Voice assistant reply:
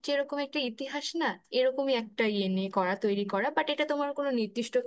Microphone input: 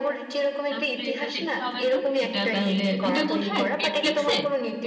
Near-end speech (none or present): present